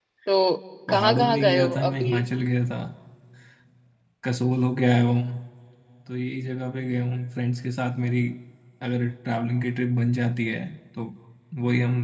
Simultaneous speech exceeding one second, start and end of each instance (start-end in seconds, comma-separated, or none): 0.9-2.2